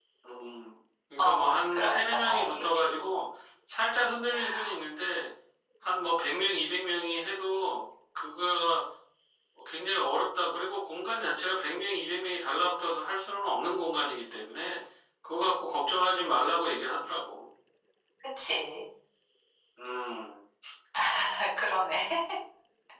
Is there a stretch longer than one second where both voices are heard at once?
Yes, from 1.2 s

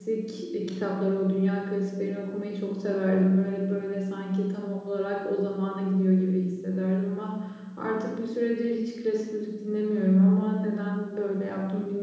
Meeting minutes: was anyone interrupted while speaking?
No

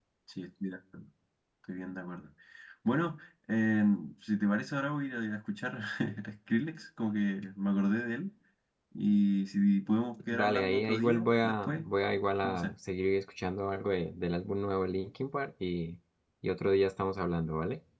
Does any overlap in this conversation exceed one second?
Yes, from 10.3 s

